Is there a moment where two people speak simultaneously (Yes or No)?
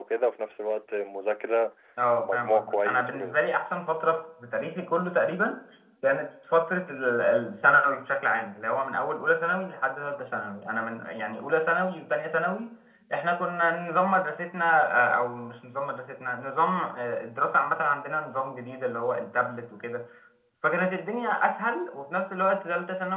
Yes